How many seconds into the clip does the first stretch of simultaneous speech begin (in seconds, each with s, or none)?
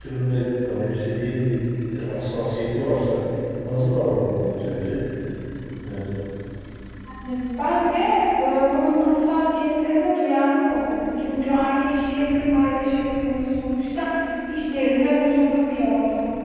none